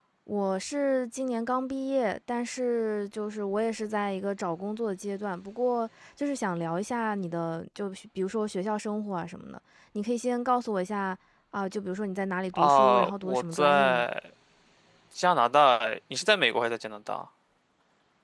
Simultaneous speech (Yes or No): Yes